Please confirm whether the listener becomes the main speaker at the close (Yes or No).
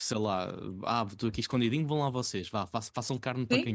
Yes